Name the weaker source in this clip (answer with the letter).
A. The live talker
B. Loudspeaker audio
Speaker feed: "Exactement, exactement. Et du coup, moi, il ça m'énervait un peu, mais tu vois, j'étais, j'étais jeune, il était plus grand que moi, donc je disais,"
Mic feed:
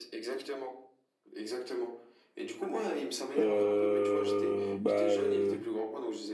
B